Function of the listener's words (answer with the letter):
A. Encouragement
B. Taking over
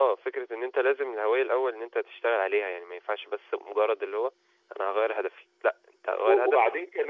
B